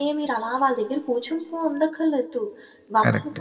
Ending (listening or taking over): listening